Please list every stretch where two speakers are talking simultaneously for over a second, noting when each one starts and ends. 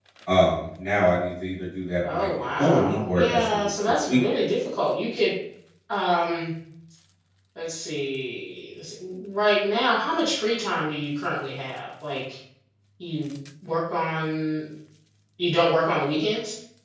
2.1-4.4

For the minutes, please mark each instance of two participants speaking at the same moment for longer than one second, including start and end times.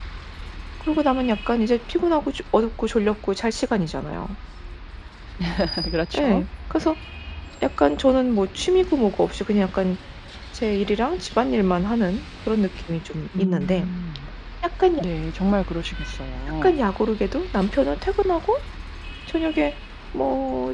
none

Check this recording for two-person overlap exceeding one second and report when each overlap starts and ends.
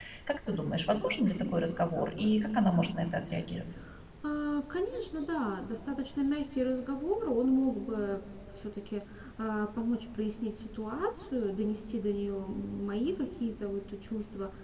none

